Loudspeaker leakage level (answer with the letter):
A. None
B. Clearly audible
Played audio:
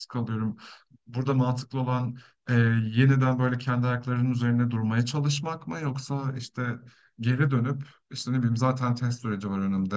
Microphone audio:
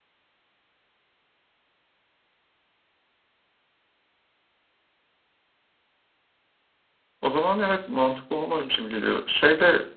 A